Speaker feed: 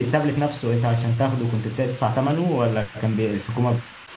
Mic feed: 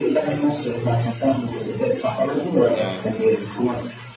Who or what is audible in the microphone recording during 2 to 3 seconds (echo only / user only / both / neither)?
both